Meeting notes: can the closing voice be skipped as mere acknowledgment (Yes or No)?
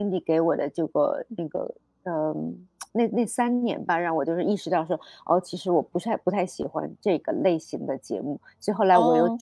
No